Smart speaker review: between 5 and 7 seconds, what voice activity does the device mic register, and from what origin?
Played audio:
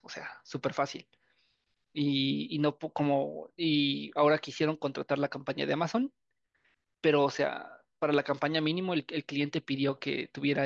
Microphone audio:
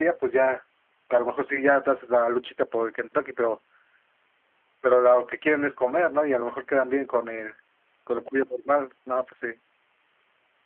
user only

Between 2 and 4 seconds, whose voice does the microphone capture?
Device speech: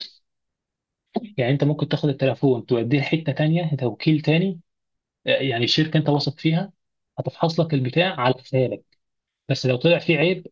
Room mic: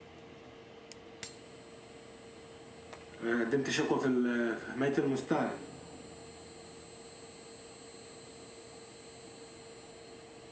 user only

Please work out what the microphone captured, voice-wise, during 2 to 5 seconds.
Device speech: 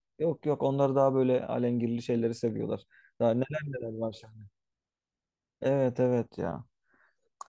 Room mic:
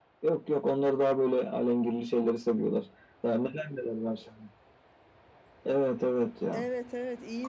echo only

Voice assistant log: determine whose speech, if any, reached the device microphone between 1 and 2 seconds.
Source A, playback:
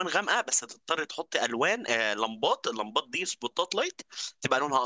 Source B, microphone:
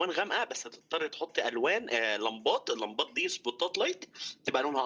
echo only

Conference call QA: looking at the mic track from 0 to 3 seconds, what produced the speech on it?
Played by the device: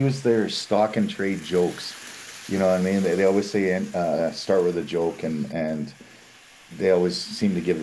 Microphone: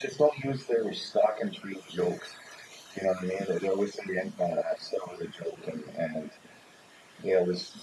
echo only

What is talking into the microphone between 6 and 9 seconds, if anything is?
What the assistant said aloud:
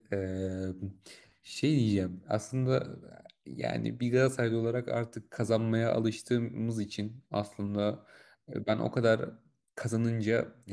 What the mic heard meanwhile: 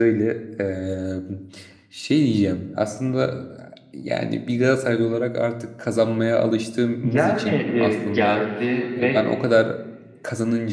both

